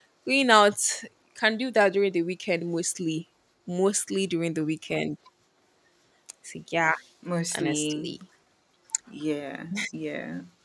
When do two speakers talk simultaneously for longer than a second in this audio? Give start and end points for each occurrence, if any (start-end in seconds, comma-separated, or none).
none